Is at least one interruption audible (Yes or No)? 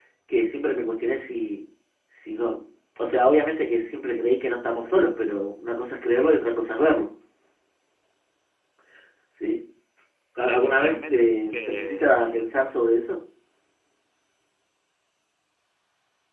Yes